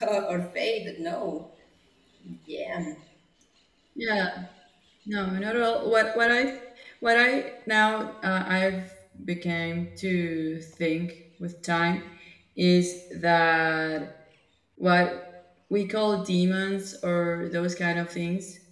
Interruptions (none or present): none